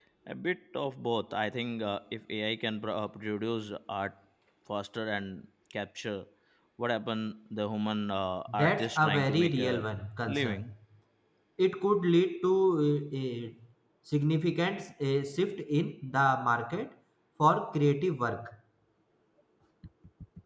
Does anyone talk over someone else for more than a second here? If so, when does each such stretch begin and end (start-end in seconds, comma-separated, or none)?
8.5-9.8